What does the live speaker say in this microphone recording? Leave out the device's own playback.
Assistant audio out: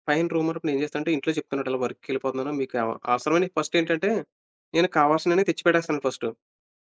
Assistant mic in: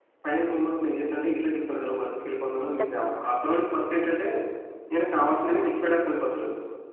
హ్మ్. ఖచ్చితంగా.

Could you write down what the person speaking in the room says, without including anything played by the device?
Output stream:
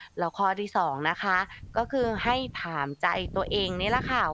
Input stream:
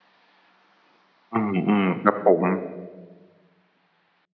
อืมๆครับผม

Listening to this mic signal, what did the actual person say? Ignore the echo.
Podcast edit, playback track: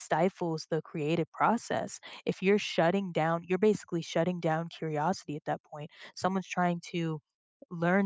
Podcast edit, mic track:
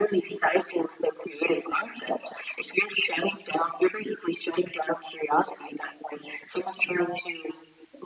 none

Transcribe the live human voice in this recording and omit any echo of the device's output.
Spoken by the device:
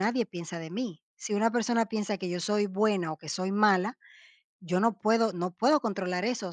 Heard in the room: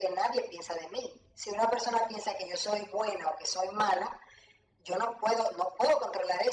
none

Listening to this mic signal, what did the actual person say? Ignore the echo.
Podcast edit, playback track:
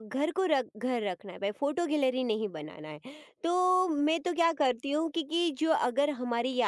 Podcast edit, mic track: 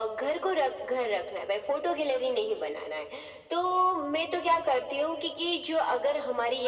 none

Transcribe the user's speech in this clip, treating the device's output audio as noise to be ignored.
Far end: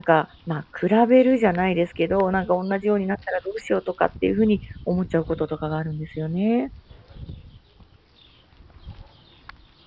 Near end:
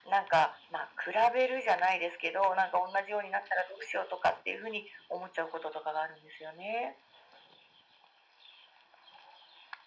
none

